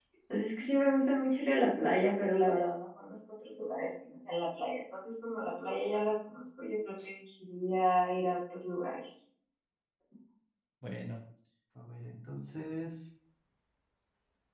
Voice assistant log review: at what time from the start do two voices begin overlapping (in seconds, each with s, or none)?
none